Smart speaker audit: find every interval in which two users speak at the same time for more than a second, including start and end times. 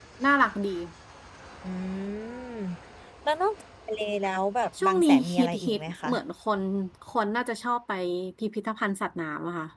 4.8-6.1

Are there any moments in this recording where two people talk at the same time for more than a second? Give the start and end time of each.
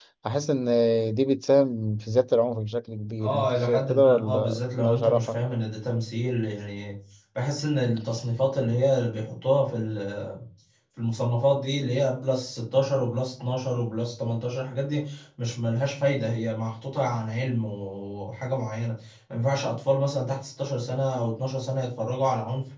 3.2-5.4

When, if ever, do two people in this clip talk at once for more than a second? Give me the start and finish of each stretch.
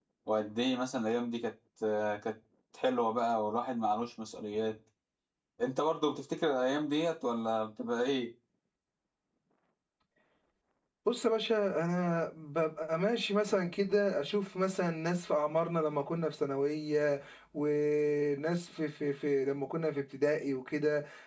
none

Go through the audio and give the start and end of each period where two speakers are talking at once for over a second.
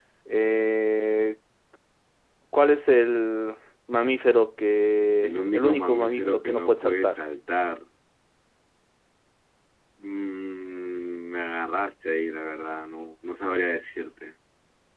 5.2-7.2

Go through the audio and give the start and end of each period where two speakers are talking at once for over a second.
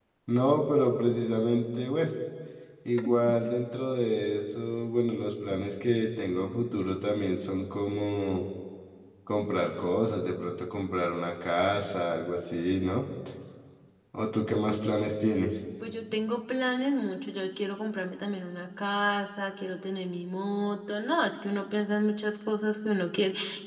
none

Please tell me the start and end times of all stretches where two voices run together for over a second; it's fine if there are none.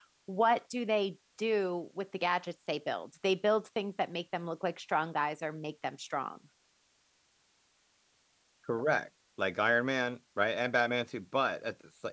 none

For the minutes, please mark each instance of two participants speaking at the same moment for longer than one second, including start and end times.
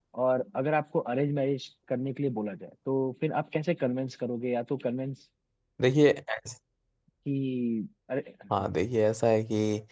none

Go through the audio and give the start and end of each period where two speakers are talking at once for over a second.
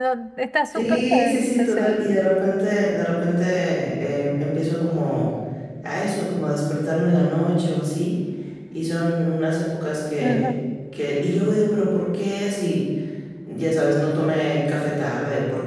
0.7-2.0

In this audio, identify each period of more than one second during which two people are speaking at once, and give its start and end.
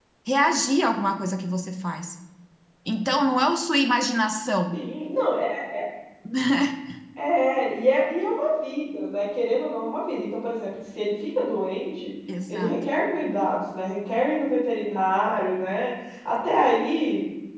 none

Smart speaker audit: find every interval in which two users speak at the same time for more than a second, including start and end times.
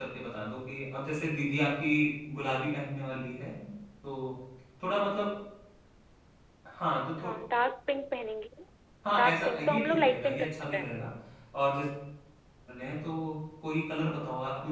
9.2-10.9

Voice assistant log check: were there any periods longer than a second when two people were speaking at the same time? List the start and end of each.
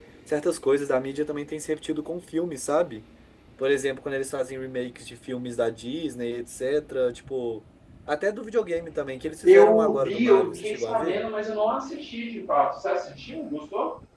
9.4-11.2

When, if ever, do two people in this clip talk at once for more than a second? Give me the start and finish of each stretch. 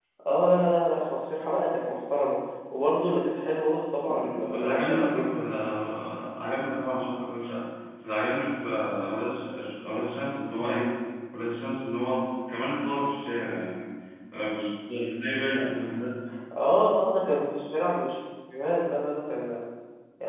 4.0-5.6

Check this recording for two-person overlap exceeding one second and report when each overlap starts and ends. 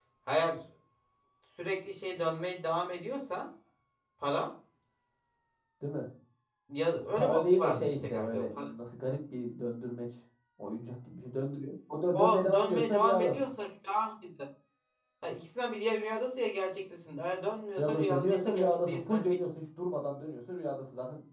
7.2-8.7, 12.1-13.4, 17.8-19.3

